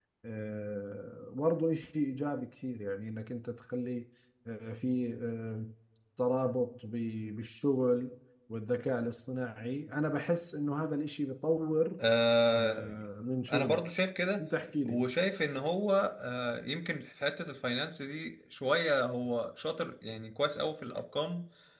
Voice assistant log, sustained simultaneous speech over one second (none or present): none